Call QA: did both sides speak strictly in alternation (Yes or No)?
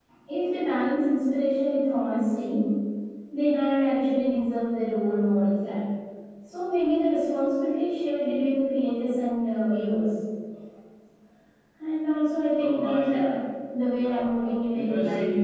No